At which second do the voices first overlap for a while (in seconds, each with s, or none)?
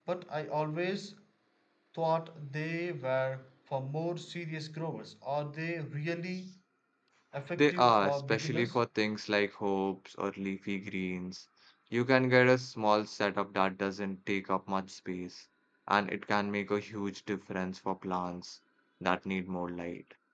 7.6 s